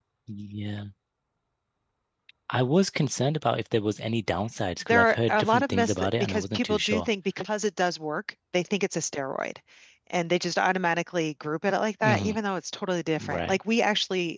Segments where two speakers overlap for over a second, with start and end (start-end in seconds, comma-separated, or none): 4.9-7.1